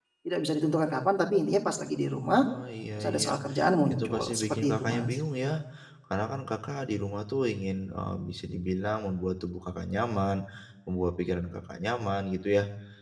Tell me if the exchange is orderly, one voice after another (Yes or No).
No